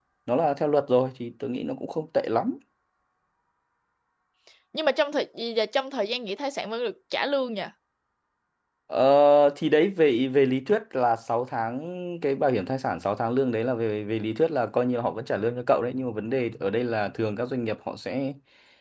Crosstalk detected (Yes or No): No